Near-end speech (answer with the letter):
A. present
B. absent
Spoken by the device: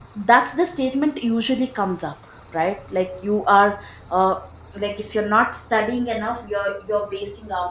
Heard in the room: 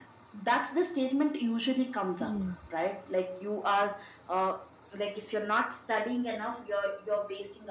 A